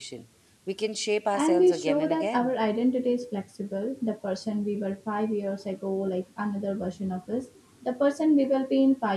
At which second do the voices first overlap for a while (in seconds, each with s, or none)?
1.3 s